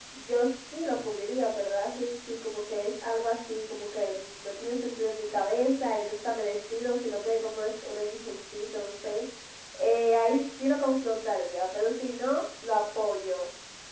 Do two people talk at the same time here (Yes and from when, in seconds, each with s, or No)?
No